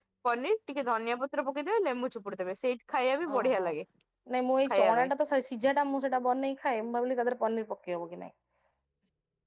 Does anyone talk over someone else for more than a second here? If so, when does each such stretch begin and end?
none

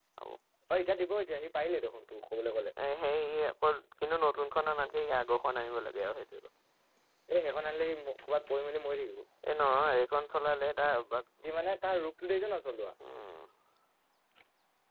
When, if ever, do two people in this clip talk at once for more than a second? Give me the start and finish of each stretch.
none

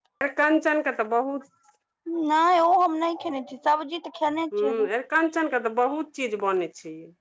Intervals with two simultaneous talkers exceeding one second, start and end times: none

